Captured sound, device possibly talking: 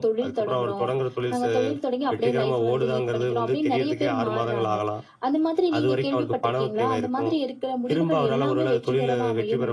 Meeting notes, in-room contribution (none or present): none